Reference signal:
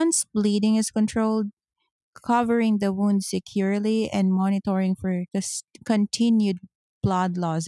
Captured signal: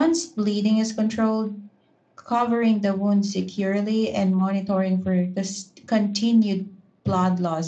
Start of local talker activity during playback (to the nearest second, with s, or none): none